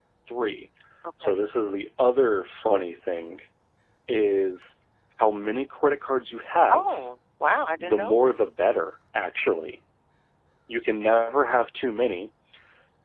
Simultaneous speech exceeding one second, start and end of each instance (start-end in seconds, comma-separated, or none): none